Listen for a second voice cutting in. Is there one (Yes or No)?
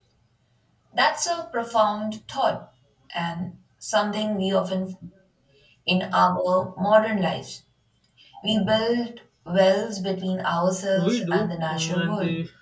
Yes